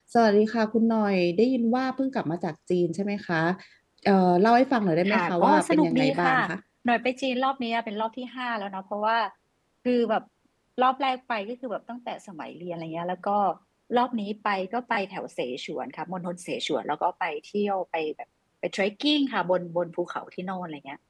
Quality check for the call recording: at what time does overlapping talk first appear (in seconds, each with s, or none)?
5.0 s